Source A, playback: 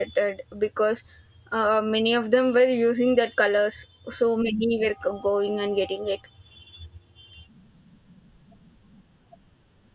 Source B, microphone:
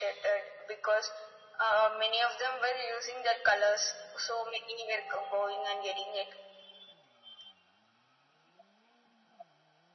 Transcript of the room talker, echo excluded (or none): none